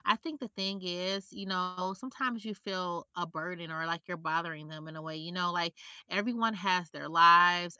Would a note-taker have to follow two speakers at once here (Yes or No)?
No